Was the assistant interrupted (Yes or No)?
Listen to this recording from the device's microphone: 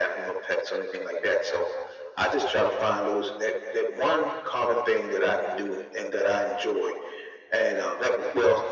No